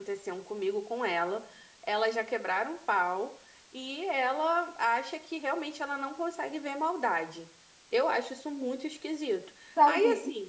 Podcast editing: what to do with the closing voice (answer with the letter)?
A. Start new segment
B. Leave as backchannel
A